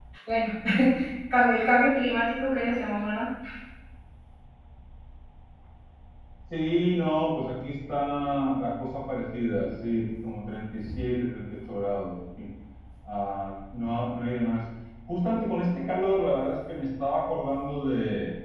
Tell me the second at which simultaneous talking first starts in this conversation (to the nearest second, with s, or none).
none